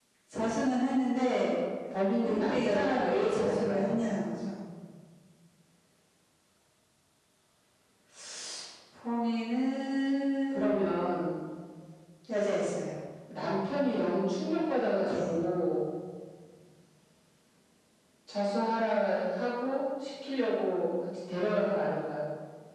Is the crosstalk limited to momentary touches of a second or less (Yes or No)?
No